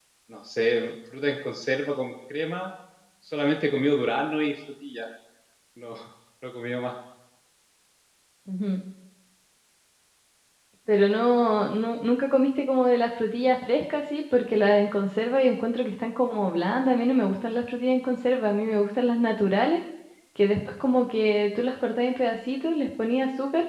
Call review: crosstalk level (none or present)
none